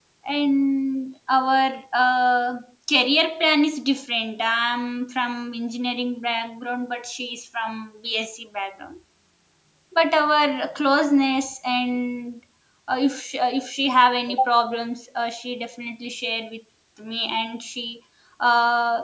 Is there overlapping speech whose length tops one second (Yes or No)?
No